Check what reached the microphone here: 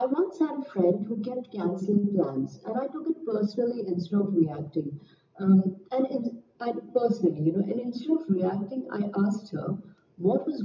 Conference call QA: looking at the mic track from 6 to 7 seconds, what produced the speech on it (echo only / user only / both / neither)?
echo only